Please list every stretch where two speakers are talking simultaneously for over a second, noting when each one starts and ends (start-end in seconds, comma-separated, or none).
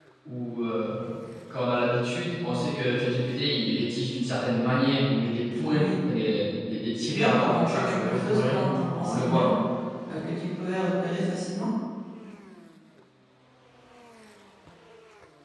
7.1-9.5